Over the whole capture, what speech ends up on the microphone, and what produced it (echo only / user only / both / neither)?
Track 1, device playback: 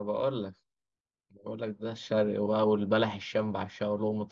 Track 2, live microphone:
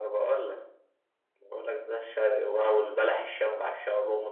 echo only